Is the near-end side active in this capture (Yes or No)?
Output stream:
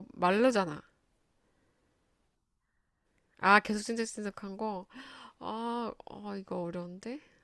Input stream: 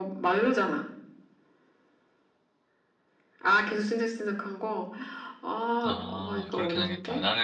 Yes